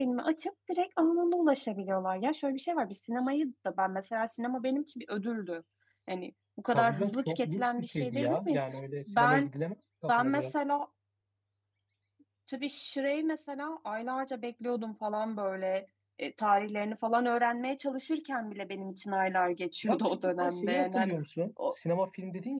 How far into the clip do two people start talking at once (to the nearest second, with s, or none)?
7 s